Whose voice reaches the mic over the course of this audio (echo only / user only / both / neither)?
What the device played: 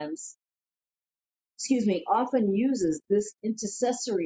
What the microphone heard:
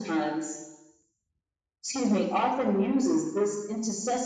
echo only